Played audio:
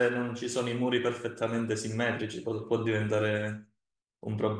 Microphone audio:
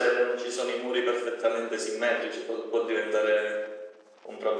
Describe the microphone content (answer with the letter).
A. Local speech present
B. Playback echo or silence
B